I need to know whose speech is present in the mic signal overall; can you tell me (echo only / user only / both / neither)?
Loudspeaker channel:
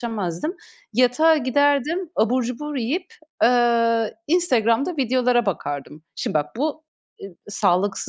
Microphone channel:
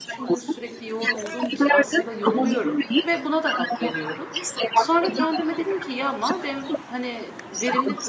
both